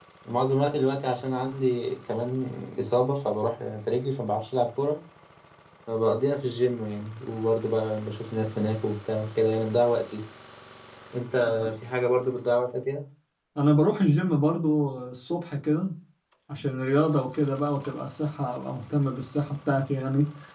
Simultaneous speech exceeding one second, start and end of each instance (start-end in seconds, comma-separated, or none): none